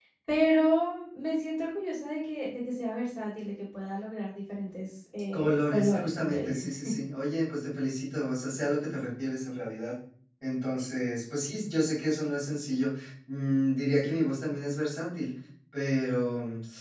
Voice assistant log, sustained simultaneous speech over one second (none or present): present